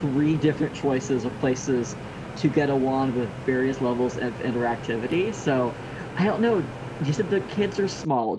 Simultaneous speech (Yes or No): No